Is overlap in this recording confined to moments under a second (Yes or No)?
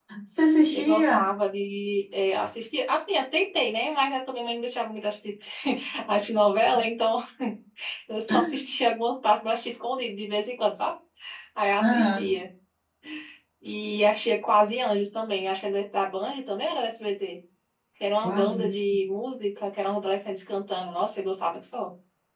Yes